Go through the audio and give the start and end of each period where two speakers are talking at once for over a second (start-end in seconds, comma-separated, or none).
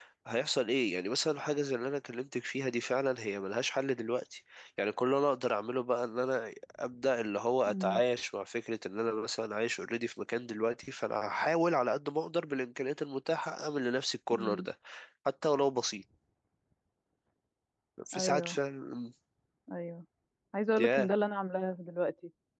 none